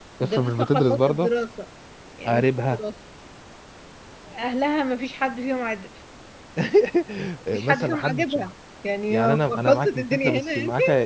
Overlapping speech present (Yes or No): Yes